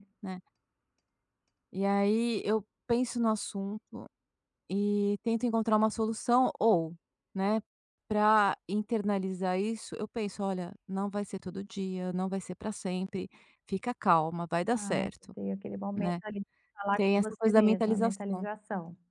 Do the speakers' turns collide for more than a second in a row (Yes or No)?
Yes